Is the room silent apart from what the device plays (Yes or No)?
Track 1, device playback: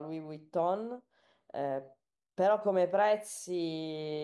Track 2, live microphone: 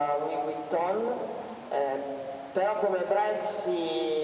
Yes